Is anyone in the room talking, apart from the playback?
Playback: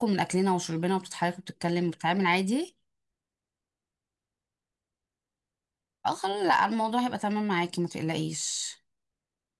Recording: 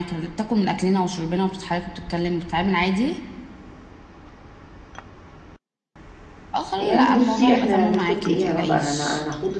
Yes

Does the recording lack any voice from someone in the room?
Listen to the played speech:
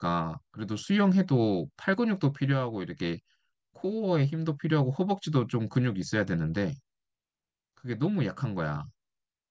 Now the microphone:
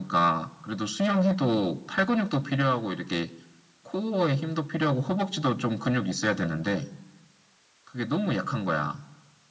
Yes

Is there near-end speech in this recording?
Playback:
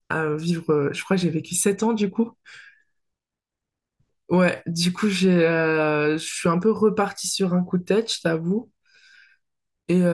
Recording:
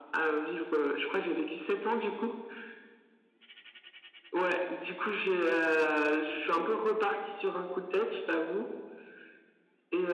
Yes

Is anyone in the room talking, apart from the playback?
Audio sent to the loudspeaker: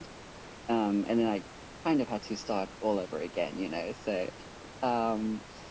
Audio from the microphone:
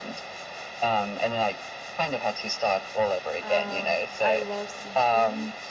Yes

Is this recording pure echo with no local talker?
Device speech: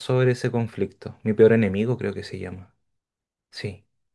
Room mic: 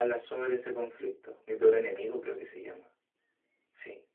Yes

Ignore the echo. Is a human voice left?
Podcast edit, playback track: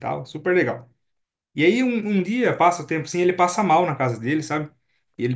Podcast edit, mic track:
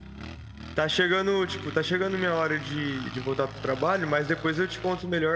Yes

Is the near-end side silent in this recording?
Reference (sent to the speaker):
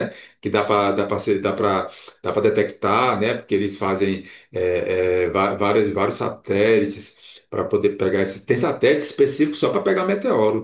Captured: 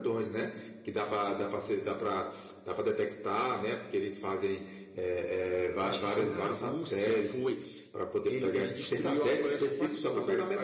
No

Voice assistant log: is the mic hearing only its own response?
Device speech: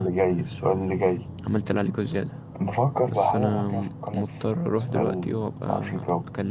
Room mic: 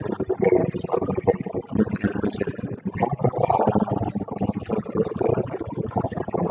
Yes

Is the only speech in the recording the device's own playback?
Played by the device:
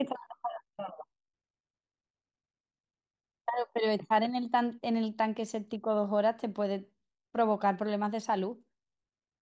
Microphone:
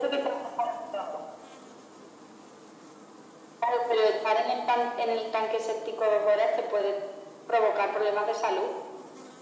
Yes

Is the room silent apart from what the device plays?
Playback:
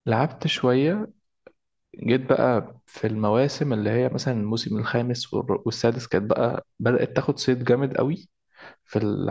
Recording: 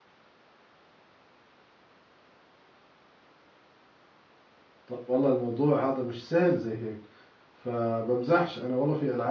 No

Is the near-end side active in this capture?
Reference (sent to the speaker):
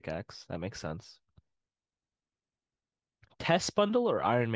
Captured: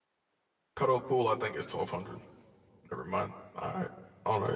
Yes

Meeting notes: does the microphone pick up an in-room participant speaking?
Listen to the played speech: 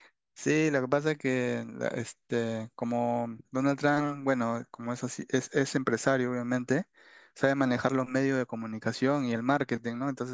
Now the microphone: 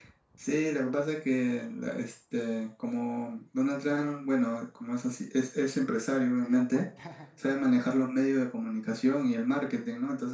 Yes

